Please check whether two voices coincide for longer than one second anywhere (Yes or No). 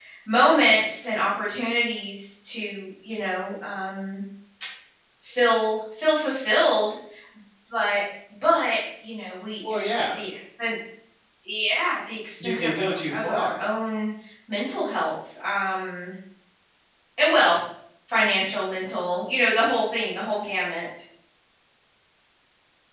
Yes